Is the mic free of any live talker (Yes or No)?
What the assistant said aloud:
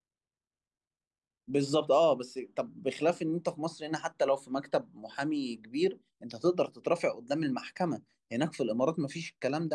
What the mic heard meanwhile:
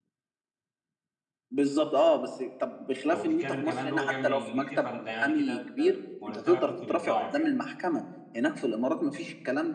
No